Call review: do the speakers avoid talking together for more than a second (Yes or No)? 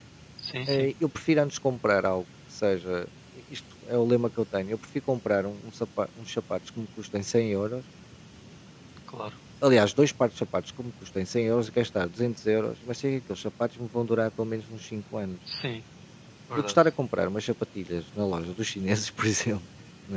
Yes